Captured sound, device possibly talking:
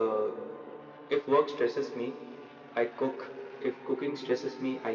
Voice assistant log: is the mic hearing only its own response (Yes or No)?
Yes